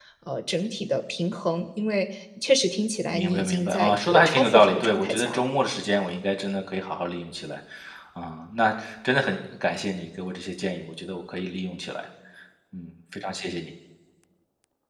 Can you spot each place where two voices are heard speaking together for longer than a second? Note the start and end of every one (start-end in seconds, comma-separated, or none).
3.1-5.5